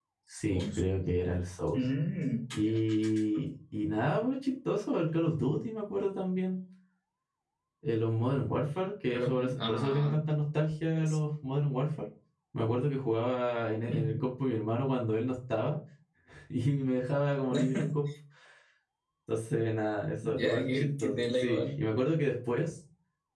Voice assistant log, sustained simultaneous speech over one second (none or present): present